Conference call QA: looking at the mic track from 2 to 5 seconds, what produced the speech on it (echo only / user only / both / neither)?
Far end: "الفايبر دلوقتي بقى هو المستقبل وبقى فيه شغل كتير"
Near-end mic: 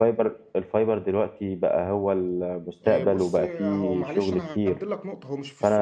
both